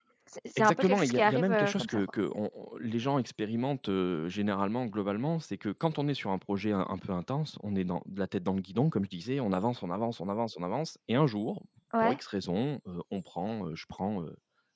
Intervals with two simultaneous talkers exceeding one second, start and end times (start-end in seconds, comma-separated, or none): 0.6-2.0